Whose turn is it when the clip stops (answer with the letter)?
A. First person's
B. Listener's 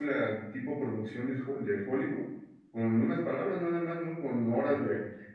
A